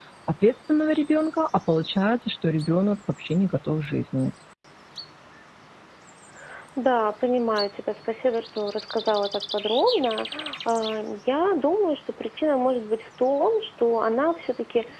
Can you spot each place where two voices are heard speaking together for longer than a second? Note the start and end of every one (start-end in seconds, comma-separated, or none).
none